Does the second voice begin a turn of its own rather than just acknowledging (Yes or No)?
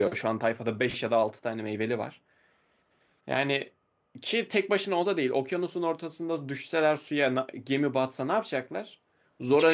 No